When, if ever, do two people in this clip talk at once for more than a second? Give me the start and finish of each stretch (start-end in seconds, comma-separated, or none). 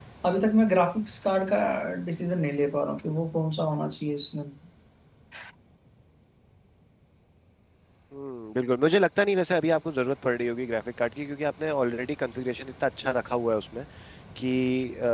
none